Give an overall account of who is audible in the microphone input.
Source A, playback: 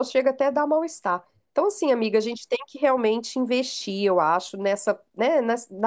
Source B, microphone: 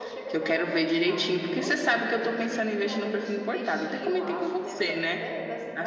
both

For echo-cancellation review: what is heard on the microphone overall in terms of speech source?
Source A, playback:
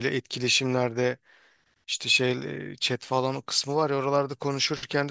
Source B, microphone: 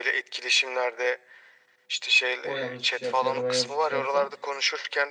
both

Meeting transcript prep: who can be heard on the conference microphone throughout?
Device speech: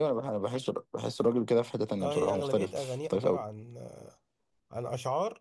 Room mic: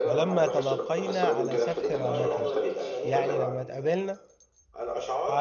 both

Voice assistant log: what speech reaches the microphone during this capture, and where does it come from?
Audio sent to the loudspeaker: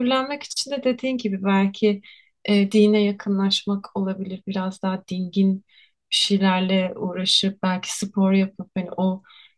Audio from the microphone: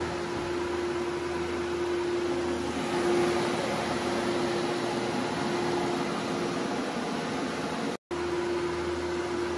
neither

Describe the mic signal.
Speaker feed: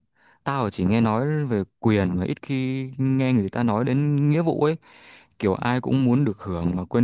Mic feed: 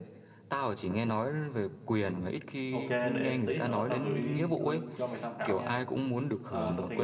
both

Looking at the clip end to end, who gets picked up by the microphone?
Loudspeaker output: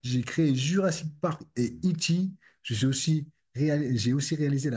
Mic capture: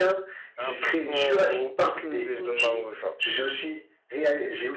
both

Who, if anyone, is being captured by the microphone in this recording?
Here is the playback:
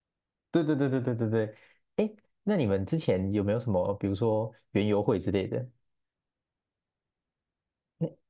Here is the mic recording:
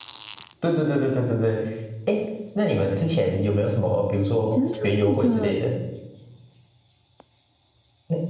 both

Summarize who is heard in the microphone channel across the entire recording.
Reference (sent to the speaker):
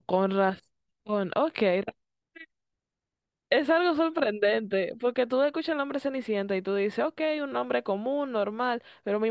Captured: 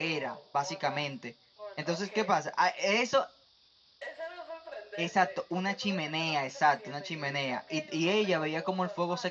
both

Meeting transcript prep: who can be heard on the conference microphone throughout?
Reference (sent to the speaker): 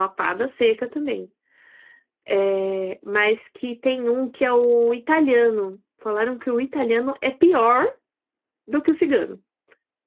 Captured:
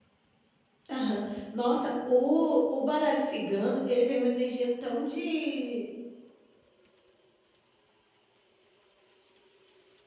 user only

